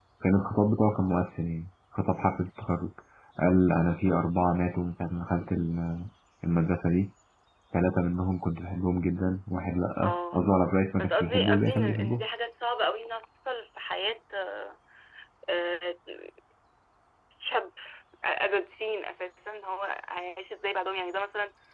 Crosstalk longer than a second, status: present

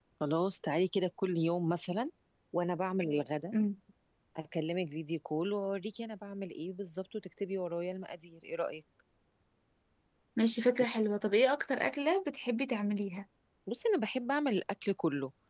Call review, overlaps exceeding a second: none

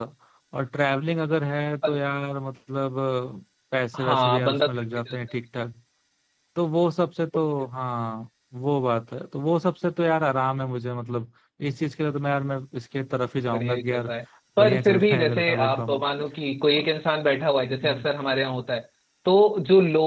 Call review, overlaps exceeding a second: present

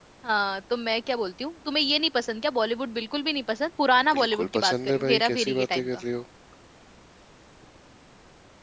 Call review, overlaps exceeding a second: present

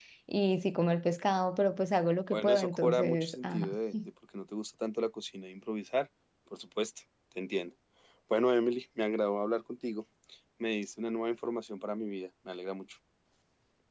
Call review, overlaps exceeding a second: present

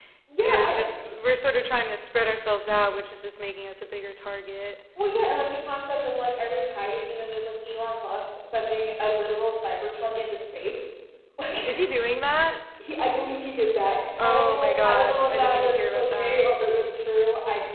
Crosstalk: present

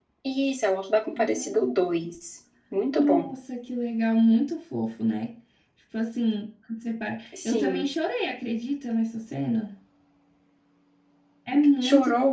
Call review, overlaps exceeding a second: none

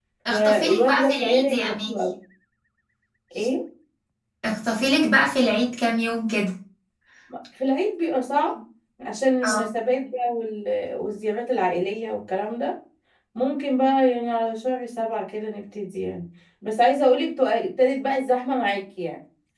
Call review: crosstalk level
present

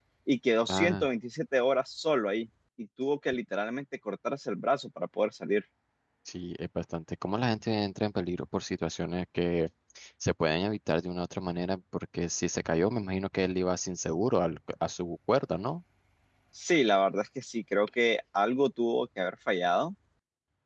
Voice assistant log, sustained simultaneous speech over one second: none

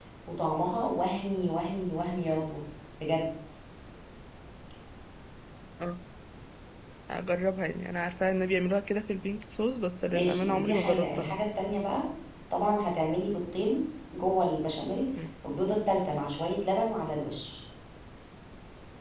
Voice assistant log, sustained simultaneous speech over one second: present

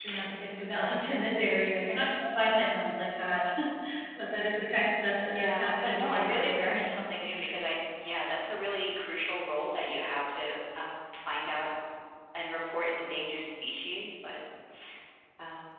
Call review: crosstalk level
present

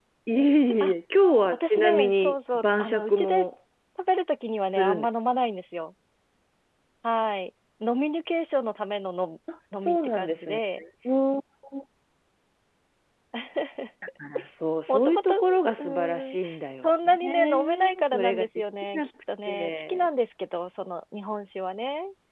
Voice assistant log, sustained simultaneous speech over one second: present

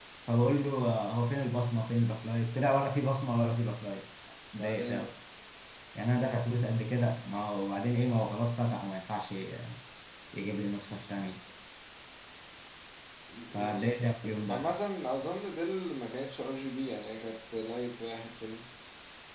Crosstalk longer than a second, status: none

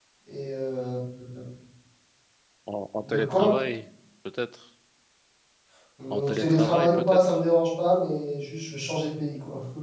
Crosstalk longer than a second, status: present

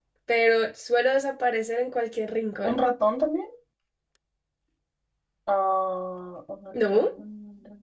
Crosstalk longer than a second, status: none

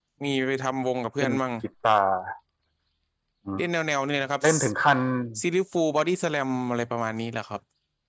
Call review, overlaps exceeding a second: none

